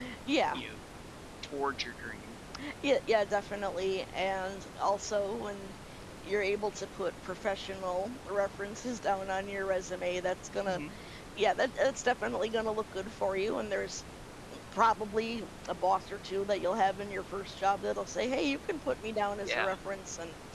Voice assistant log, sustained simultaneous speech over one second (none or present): none